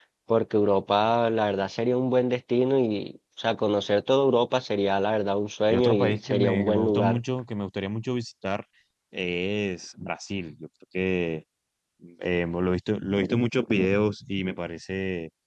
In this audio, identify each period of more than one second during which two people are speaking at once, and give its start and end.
5.7-7.2

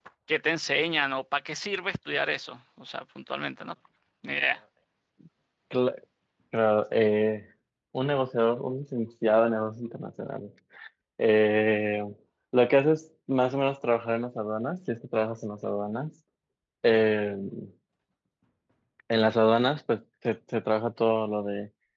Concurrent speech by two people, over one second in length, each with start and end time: none

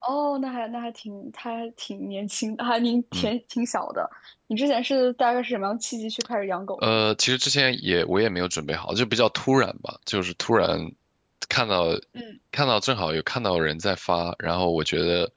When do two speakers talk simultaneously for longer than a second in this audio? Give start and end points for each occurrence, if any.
none

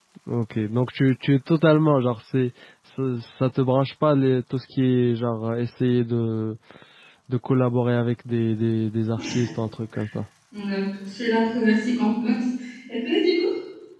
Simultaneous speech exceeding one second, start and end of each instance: none

